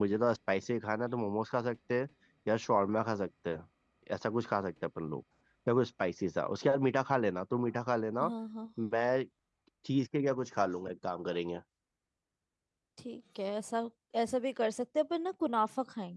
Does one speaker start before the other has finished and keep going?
No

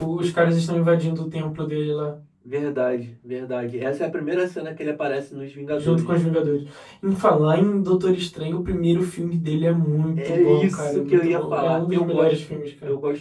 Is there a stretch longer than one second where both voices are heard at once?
Yes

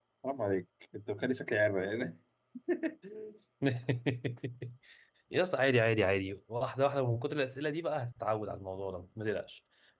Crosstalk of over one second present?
No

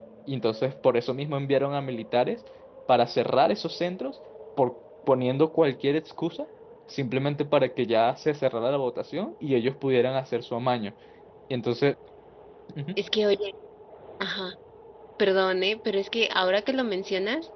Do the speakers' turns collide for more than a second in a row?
No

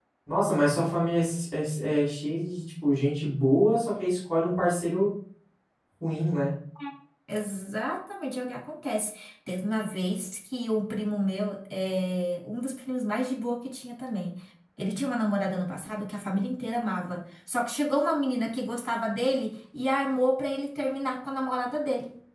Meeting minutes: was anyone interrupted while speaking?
No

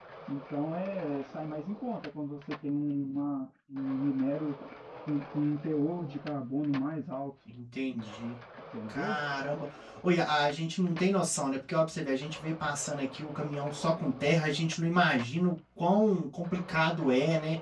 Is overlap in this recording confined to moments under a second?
Yes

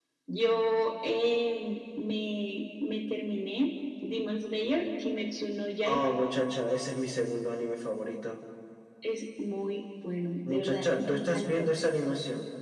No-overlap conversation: No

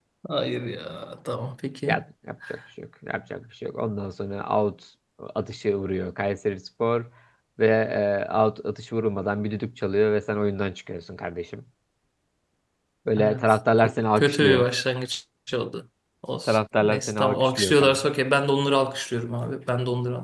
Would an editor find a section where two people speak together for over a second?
Yes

